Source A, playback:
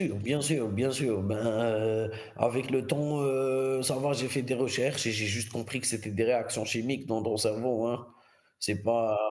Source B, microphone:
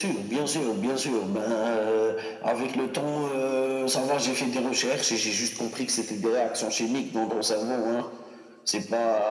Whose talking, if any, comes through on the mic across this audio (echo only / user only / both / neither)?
echo only